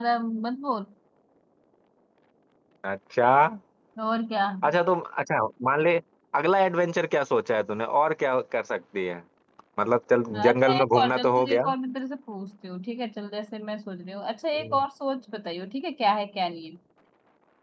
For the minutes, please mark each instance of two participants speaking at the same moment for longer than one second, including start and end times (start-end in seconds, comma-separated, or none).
10.3-11.6